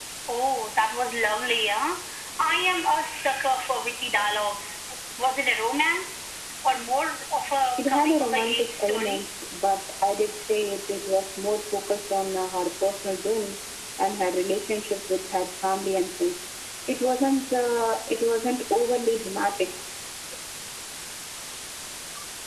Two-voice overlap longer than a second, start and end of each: 7.8-9.2

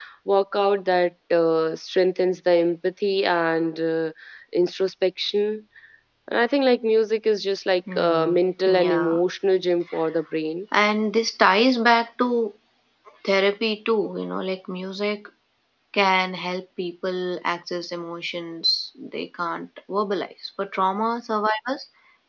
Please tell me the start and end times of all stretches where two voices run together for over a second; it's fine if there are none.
7.9-9.2

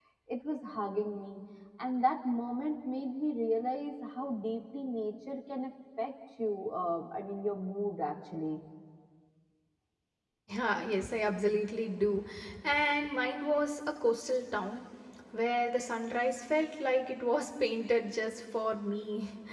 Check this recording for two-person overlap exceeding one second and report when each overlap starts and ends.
none

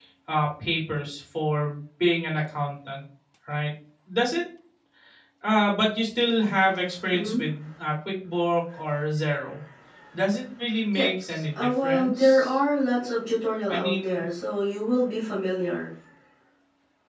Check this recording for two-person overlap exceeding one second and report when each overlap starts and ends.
10.9-12.6

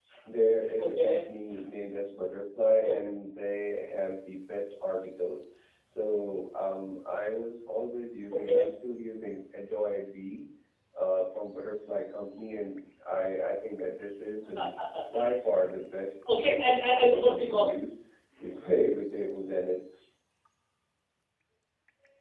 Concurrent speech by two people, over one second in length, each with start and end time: 16.3-17.8

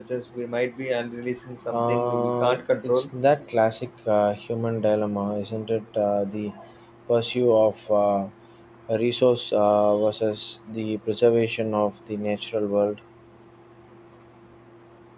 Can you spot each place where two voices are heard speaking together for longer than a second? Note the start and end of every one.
1.8-3.1

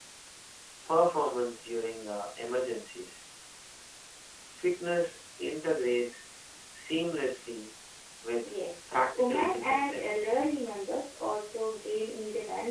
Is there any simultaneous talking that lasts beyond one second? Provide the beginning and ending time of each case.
9.2-10.4

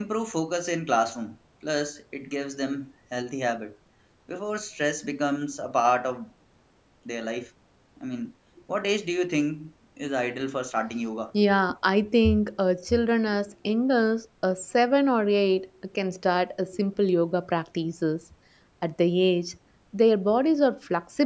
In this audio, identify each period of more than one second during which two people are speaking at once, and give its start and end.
none

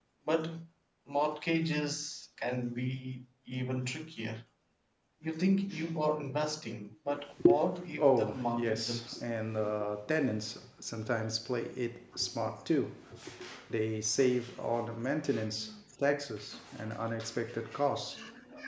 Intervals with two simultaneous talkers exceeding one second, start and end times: 8.0-9.2

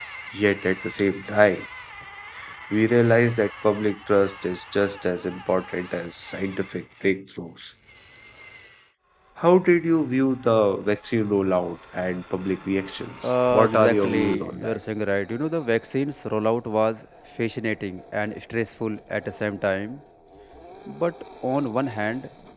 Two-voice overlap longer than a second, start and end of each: 13.2-14.8

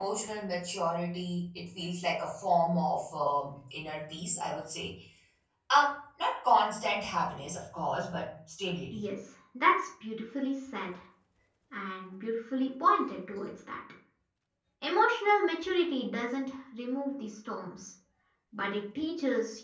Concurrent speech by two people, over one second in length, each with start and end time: none

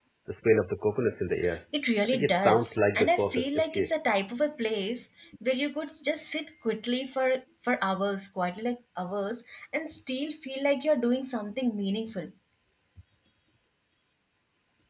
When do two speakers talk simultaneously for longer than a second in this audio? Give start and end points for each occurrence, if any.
2.0-3.9

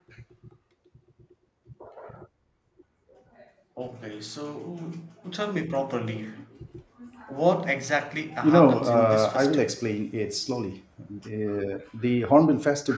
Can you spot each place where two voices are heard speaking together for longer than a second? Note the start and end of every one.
8.4-9.7

